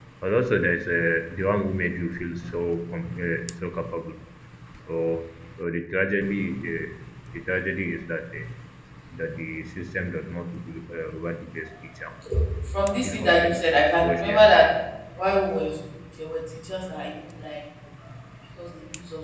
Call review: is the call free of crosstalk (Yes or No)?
No